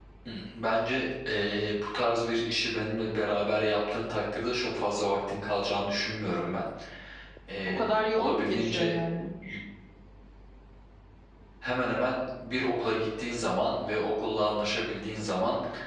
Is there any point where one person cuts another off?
Yes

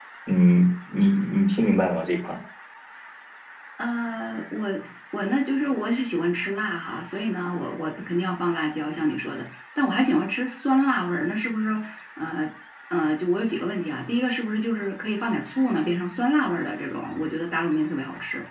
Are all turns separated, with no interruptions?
Yes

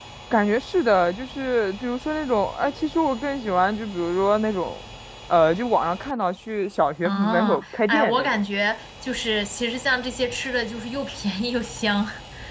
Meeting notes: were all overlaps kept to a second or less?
No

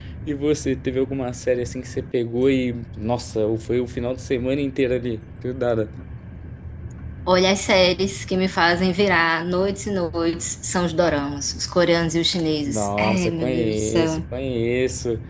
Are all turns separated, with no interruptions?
No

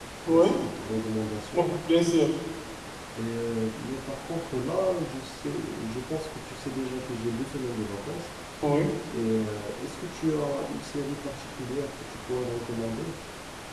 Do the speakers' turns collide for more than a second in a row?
No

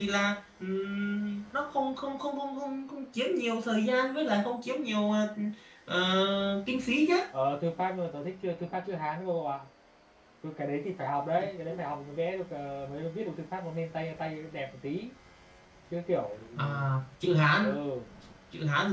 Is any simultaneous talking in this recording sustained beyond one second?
No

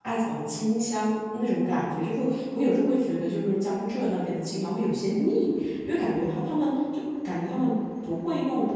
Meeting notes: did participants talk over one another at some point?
No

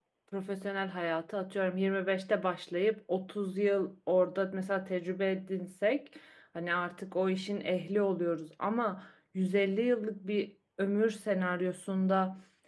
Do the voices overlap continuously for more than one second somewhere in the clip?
No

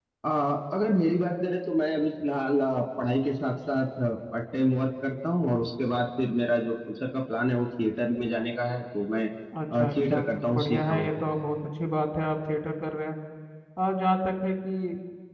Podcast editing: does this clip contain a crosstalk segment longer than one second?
Yes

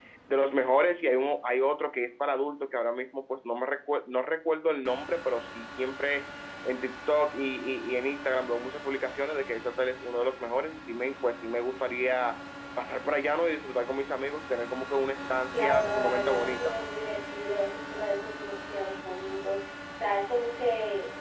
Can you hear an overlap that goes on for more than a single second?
Yes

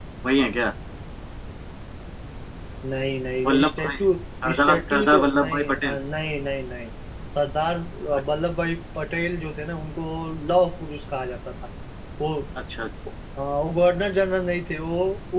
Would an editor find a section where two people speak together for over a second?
Yes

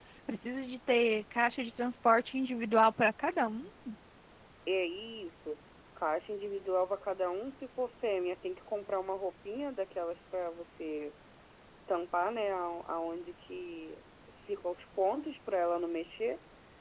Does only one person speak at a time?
Yes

